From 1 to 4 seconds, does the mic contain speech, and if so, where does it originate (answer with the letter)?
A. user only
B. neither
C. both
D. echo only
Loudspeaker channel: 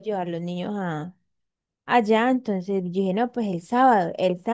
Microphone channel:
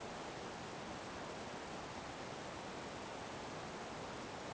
B